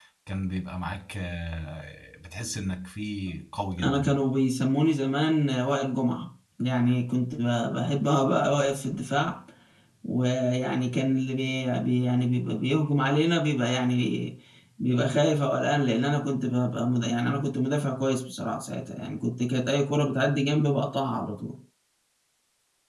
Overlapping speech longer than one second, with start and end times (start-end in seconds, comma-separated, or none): none